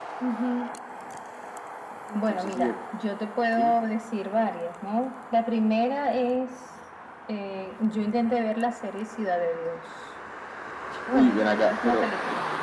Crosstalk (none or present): present